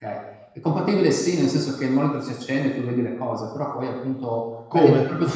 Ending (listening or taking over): listening